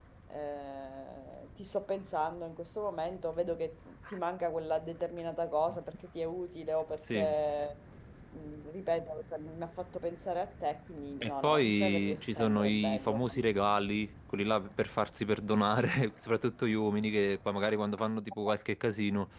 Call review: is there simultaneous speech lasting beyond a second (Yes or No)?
Yes